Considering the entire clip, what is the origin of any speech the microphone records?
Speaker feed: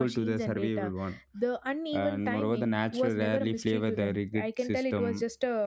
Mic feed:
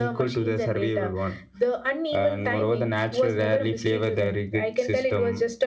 echo only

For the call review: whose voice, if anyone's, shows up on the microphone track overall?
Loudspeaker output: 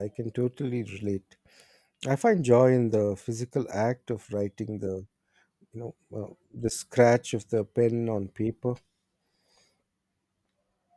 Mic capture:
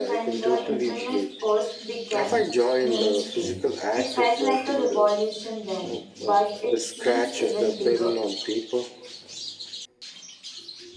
both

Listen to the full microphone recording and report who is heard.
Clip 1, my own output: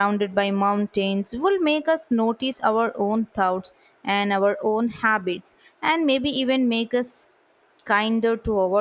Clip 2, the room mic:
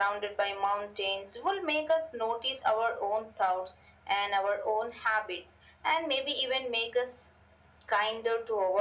echo only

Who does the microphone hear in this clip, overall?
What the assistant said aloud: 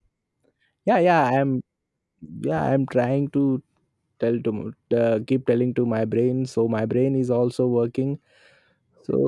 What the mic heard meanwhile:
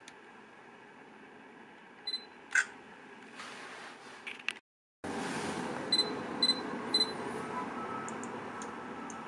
neither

